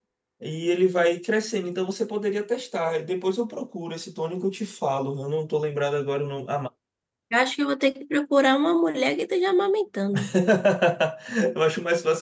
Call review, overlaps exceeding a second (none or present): none